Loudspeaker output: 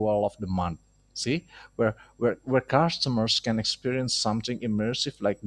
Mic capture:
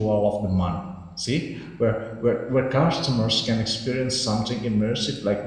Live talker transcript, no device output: none

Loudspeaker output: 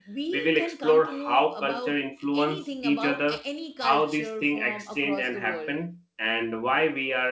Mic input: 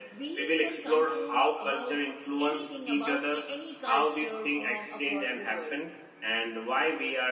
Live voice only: none

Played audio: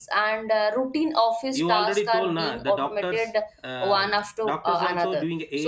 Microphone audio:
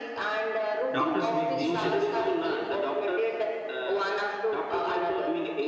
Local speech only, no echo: doctors make decisions

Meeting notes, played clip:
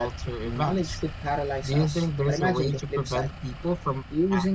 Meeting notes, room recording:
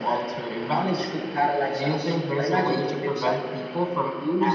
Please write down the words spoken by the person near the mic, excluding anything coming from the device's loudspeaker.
none

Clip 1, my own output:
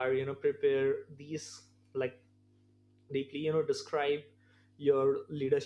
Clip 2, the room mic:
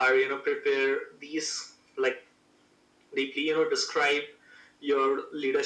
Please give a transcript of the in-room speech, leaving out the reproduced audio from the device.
none

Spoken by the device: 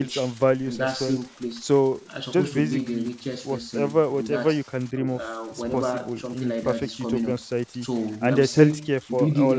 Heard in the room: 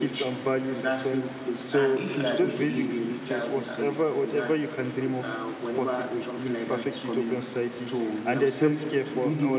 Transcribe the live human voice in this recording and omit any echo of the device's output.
and if you are the same there are,

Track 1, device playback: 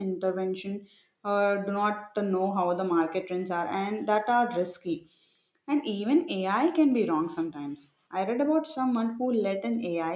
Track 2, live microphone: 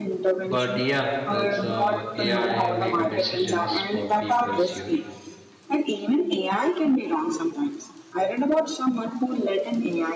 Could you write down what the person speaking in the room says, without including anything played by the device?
but yeah that's uh, ai make a decisions for people's huge

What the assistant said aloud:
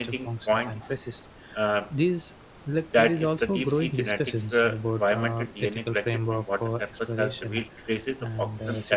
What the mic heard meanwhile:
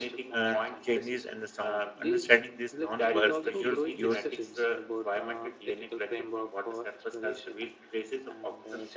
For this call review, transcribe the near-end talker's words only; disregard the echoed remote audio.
uh, changes and the sound. Understanding these non-visual cues

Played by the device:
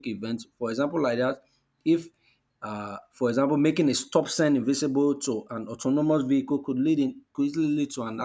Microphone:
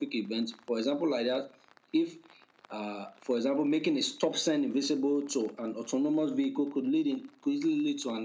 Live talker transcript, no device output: none

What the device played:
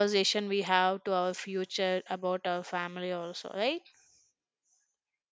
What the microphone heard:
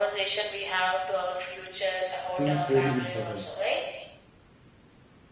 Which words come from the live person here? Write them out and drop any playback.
feels very important.

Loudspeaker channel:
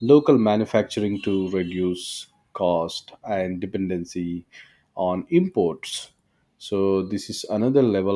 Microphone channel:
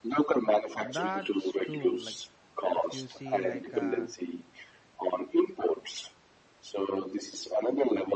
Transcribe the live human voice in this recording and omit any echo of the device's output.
That's true. Like, if you see, like, uh,

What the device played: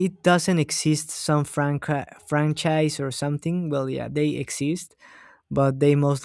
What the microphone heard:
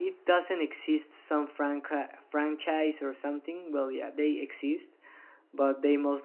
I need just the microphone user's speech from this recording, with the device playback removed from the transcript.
none

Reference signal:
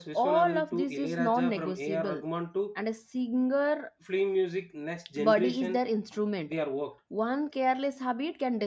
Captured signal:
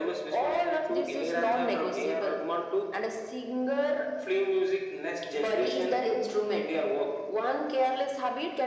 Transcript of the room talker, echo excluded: none

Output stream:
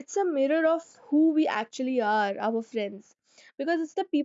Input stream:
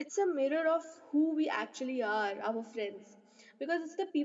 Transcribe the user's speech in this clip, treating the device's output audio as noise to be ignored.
none

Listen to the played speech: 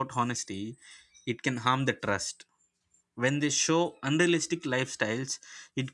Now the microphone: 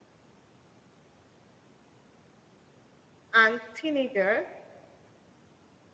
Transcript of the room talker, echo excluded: and teenagers

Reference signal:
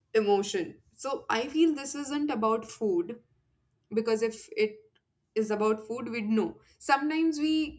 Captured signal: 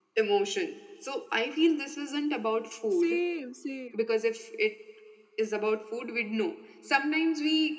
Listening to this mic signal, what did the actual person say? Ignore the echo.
Same, same.

